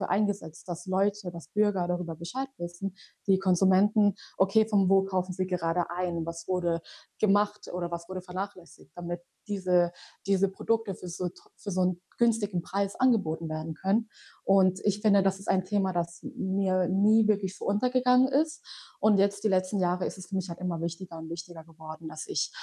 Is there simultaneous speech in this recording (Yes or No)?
No